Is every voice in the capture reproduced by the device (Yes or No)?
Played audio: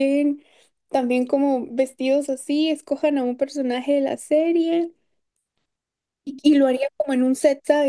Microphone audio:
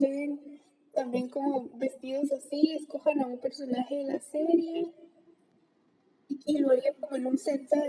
Yes